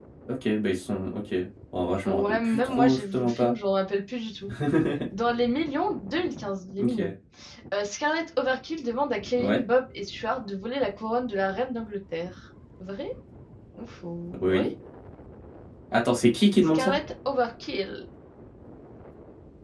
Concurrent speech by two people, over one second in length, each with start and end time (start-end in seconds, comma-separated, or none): 2.0-3.5